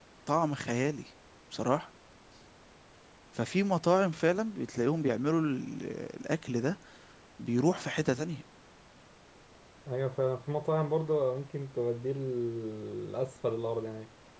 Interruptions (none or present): none